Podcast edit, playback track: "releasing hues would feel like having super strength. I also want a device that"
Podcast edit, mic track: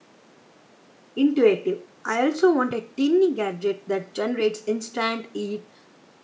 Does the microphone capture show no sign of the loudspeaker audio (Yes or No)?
Yes